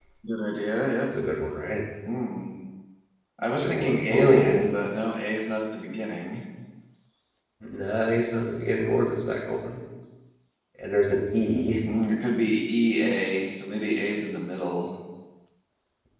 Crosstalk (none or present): present